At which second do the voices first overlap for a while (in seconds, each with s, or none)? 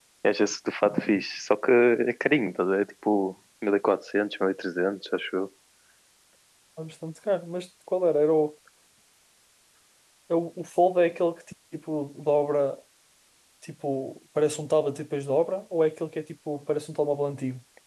none